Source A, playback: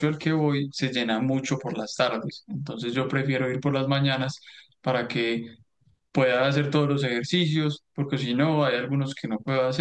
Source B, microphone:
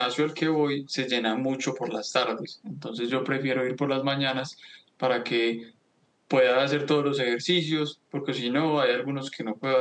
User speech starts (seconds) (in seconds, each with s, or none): none